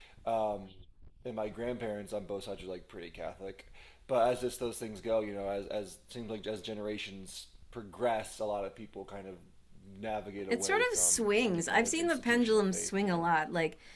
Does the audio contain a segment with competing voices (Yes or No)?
Yes